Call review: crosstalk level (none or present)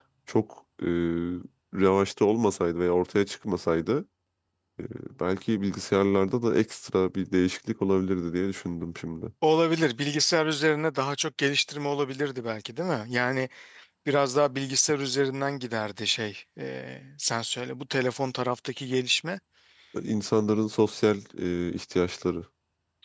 none